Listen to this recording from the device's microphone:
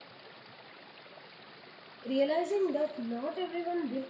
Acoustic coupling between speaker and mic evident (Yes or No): No